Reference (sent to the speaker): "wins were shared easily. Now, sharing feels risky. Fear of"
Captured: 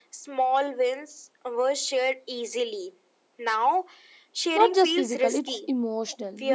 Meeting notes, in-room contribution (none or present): present